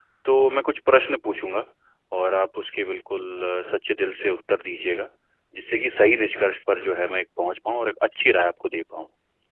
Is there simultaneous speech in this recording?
No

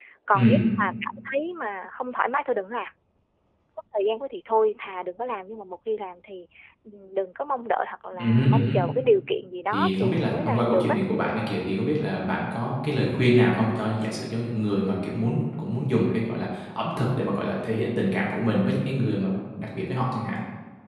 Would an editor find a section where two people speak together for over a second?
Yes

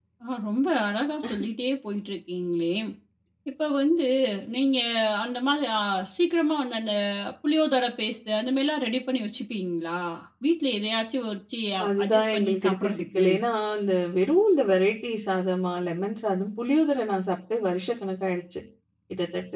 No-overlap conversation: No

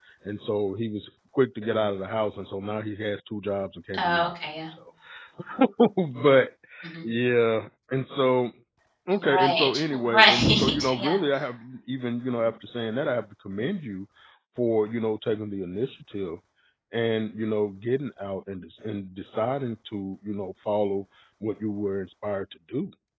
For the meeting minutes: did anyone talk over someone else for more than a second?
Yes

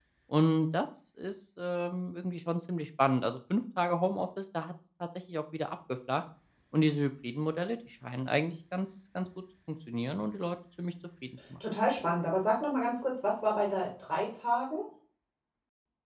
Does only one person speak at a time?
Yes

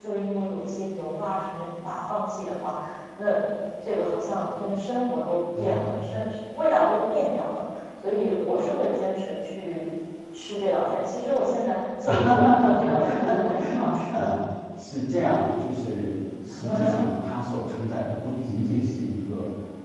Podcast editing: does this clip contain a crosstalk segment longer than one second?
Yes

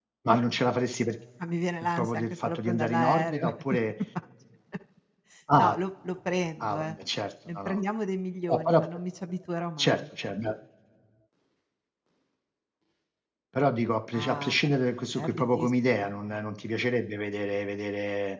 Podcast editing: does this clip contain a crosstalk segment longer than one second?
Yes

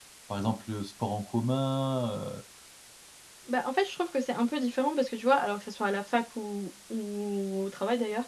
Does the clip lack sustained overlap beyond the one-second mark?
Yes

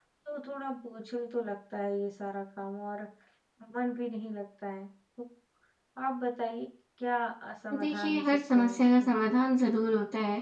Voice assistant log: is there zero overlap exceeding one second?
No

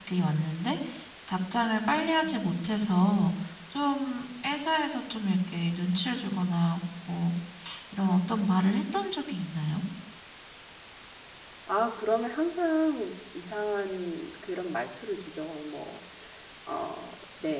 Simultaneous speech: No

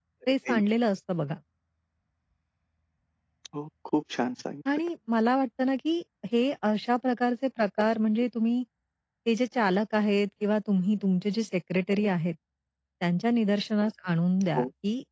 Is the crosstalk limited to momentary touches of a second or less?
Yes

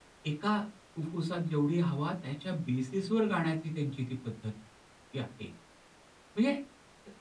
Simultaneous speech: No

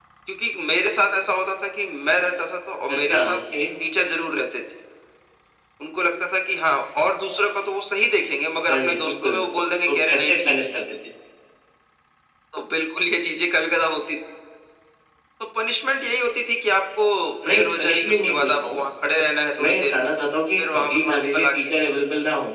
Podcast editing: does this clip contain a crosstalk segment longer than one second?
Yes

